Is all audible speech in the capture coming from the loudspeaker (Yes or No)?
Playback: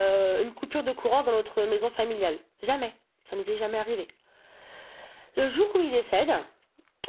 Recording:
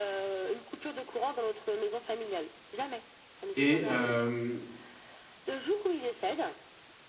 No